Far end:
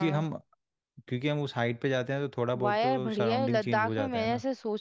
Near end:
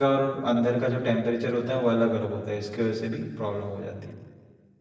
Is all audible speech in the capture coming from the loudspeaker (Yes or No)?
No